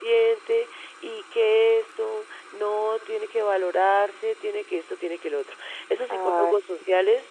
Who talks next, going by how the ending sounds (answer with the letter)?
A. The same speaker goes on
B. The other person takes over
A